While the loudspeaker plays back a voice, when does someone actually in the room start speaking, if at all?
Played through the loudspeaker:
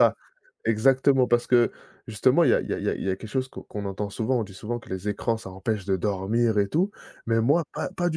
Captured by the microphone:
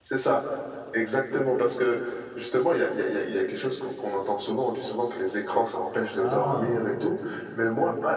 6.2 s

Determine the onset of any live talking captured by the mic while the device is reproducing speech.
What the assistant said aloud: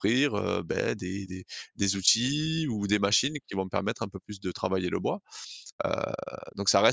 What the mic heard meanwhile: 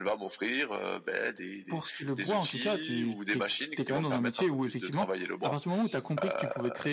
1.7 s

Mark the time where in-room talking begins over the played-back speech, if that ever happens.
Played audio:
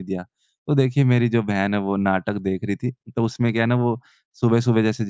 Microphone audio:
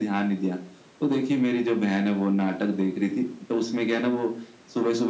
none

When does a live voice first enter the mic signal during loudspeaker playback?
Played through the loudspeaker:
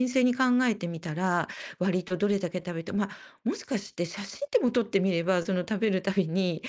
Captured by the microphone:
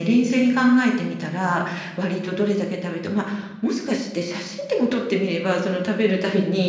none

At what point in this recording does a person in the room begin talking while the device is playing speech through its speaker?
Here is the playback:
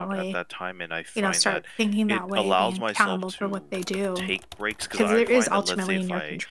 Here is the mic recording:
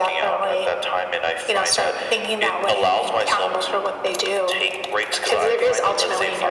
none

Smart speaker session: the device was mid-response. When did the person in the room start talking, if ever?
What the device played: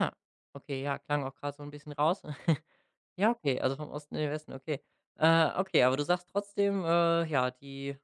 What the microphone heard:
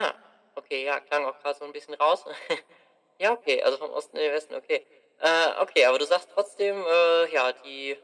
none

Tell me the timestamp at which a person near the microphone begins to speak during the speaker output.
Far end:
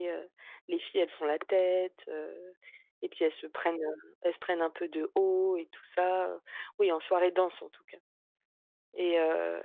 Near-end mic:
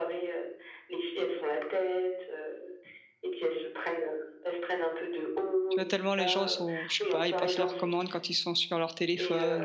5.7 s

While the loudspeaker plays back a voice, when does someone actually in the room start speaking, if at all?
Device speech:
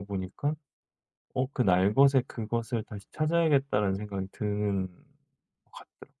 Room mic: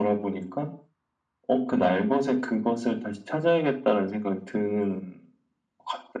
none

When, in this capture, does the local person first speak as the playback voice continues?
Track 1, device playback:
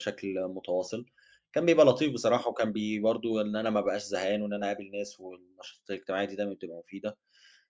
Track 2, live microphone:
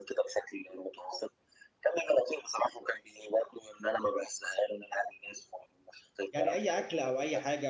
6.3 s

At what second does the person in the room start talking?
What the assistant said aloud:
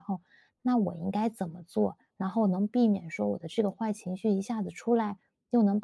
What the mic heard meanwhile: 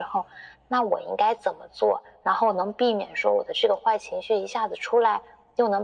none

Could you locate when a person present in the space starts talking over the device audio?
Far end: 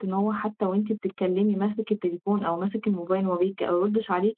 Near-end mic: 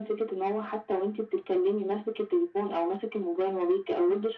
none

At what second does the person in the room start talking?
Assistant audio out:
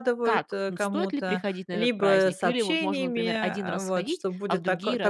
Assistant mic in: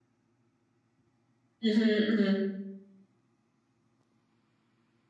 1.6 s

